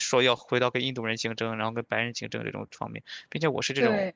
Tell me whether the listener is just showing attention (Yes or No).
Yes